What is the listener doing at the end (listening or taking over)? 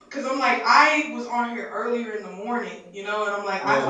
listening